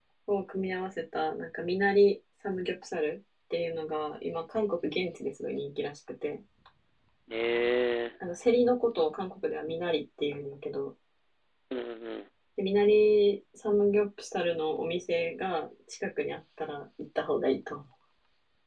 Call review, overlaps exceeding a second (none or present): none